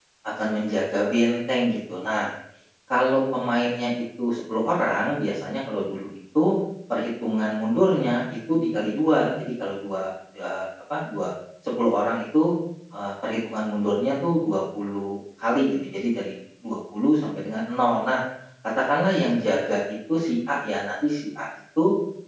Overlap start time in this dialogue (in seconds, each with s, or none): none